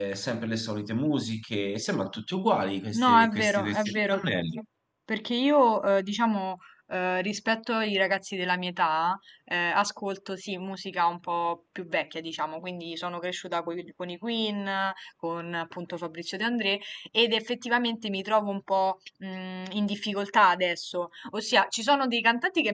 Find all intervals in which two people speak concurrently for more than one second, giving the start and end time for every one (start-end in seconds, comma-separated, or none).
2.9-4.2